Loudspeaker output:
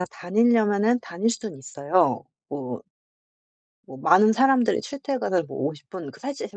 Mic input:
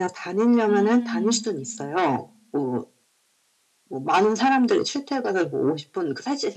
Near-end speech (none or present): present